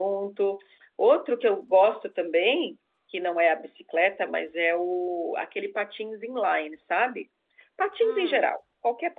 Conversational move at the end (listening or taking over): listening